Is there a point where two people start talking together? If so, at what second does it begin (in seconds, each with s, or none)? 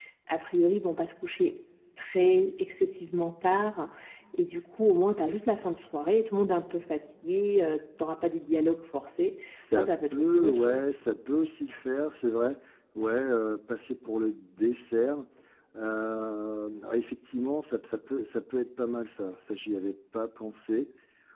9.5 s